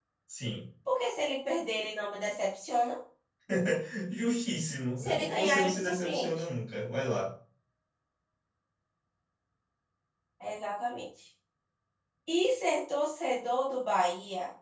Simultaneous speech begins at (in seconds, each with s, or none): 5.0 s